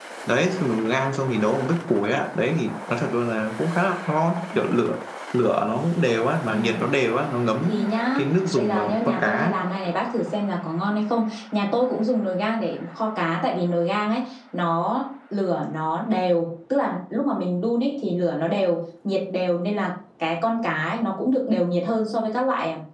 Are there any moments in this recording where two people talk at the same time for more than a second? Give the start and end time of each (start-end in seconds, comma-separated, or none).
8.2-9.5